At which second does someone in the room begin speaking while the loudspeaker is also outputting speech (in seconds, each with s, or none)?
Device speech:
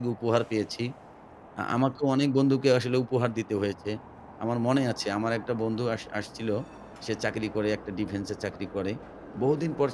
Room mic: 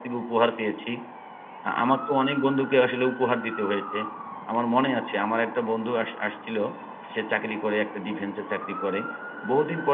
none